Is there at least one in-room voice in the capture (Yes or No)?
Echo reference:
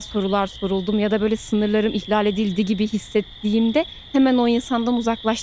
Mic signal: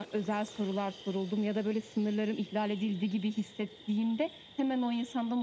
No